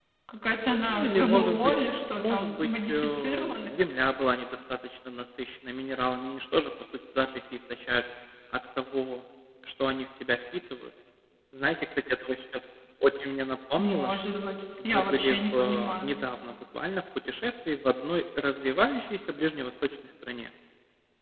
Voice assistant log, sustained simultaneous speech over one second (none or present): present